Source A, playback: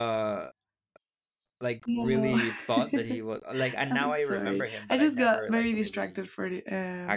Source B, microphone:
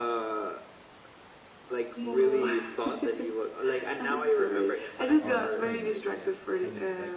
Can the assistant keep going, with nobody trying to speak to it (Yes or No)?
No